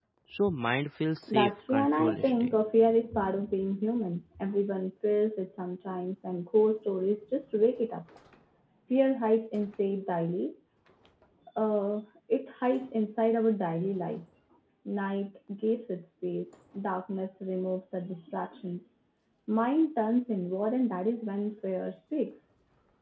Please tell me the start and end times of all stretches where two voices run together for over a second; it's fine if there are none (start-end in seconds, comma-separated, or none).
1.3-2.5